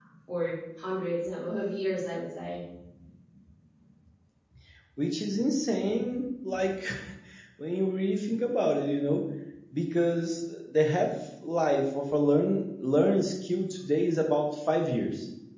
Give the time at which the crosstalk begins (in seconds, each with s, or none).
none